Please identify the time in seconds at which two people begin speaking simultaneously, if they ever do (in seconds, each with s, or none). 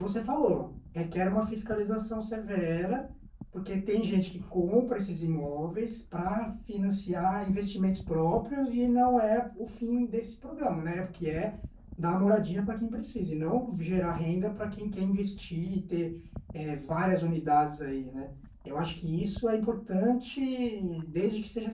none